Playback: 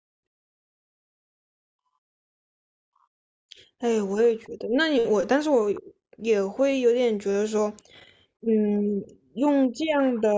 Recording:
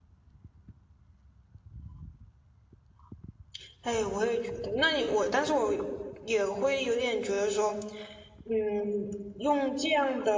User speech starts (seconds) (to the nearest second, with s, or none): none